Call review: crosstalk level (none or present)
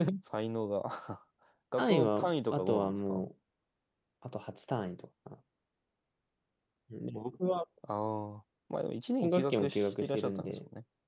present